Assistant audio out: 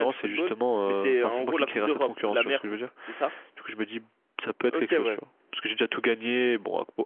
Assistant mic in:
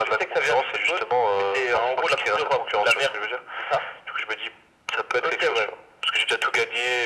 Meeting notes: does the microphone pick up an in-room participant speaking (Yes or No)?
No